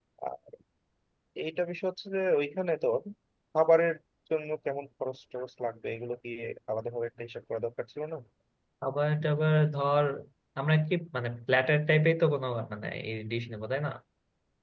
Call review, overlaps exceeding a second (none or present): none